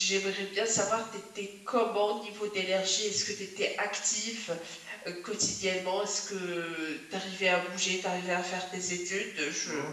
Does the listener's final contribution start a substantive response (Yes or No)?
Yes